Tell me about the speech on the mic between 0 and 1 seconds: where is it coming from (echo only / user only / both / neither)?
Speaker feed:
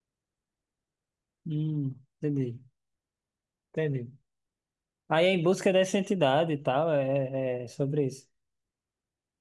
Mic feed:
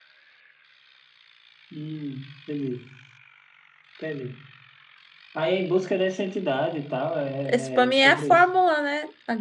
neither